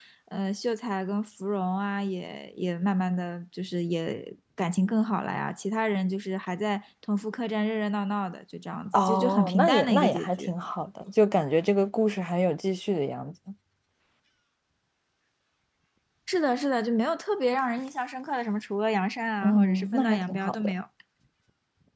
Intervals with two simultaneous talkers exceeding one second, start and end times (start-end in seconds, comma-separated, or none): 8.9-10.5, 19.4-20.7